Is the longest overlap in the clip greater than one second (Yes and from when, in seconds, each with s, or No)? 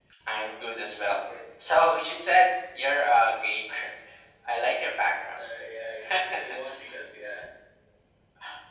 No